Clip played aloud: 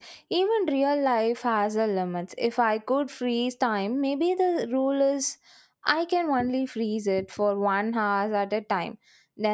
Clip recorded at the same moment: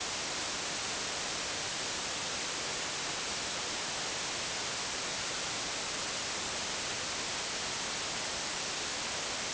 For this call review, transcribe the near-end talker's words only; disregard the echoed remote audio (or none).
none